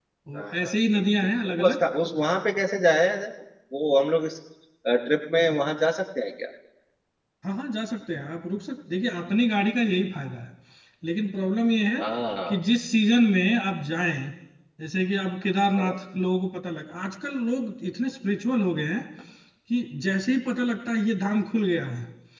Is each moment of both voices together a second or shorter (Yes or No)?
No